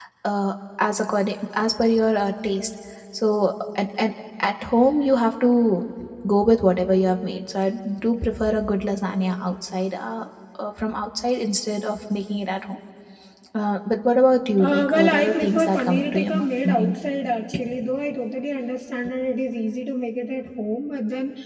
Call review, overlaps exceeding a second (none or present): present